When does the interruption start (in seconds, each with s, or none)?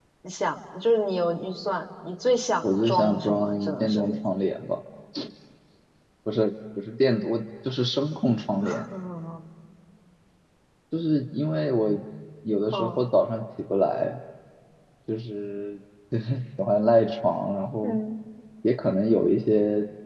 2.6 s